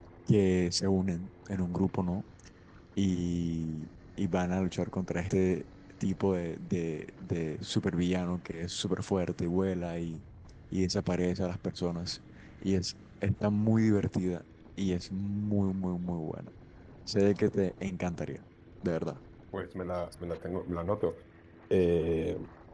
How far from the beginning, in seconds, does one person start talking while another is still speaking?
none

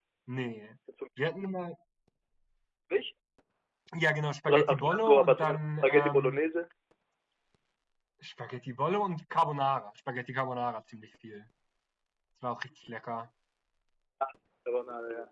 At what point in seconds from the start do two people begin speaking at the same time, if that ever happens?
4.4 s

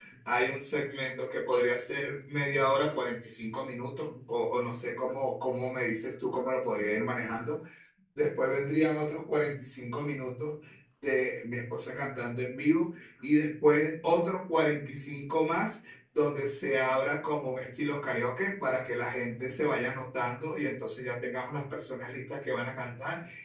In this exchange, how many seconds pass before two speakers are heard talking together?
none

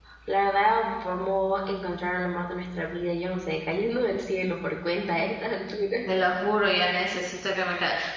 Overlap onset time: none

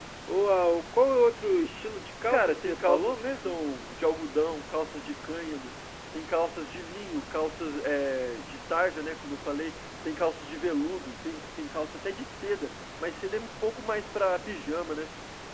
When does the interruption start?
2.3 s

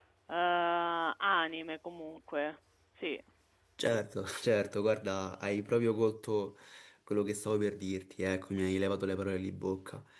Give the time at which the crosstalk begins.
none

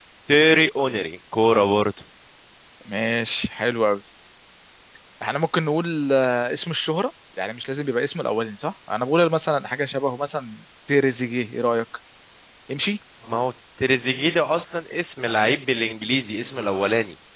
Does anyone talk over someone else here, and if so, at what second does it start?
none

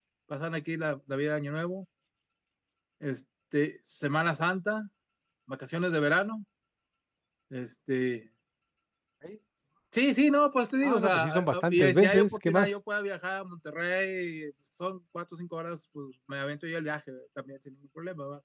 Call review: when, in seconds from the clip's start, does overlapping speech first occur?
10.8 s

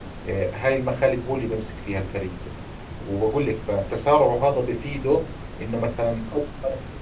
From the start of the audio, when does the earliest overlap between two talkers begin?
none

